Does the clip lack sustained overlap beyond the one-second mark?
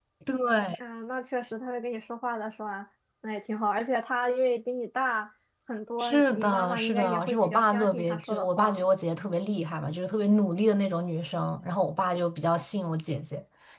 No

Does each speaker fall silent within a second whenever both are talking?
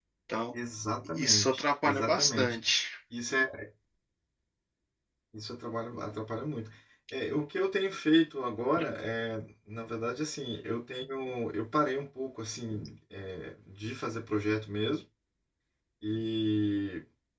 No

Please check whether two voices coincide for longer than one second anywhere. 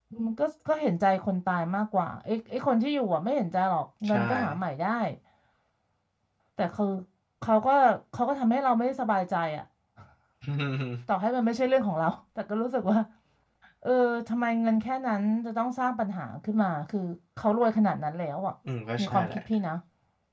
No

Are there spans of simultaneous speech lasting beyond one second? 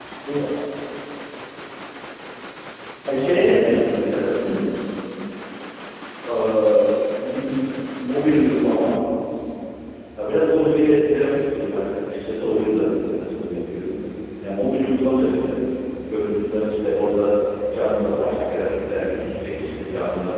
Yes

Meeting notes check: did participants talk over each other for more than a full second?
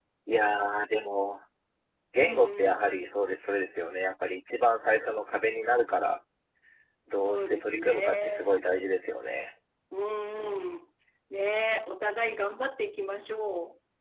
Yes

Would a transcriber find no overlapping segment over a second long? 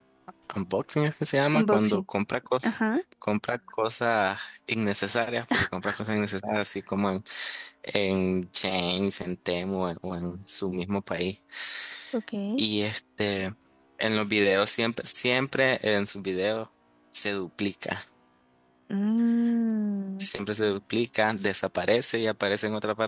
Yes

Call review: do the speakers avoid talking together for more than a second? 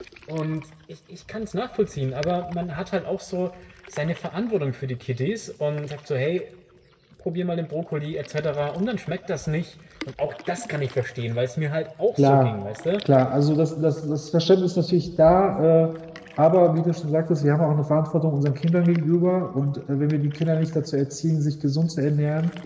Yes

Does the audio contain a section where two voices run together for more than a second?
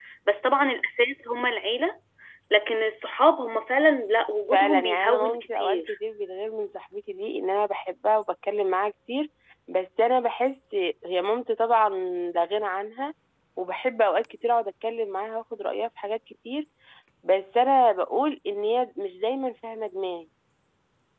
Yes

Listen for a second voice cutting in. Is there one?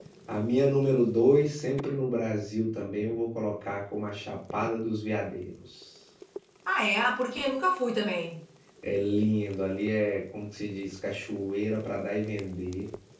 No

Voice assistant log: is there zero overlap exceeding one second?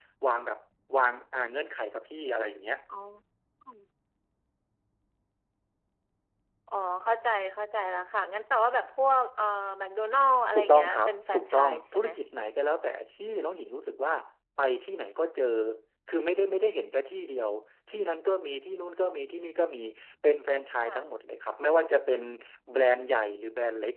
No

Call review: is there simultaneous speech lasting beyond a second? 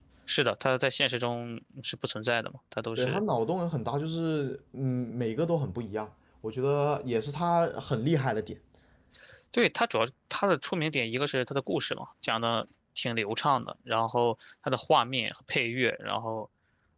No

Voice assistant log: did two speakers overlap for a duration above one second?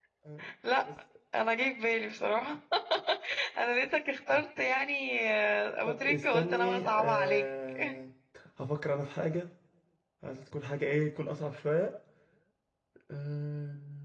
Yes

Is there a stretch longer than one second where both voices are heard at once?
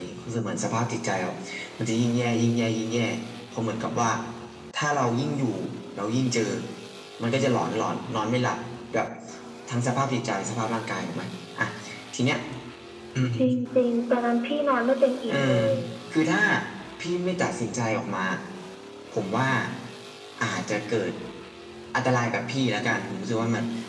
No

